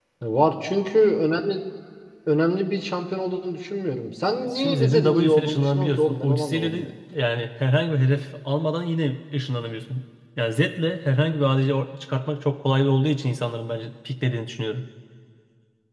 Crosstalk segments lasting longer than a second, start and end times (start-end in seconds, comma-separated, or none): 4.6-6.9